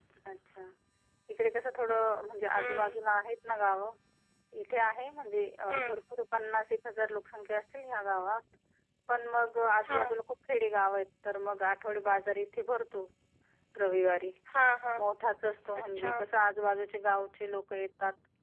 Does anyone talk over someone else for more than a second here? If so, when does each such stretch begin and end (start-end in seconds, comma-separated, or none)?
none